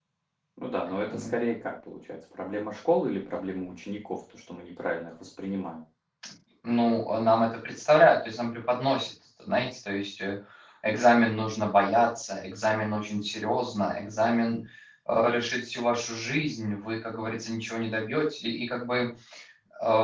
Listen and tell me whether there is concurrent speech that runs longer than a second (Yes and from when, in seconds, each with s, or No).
No